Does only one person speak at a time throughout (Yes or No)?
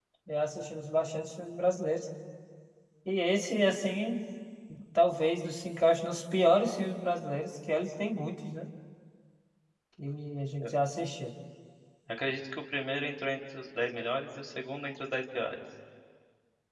Yes